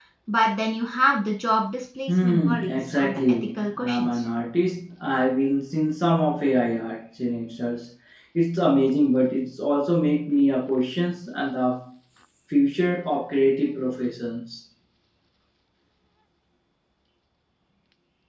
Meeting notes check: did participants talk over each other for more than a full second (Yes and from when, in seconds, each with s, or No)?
Yes, from 2.1 s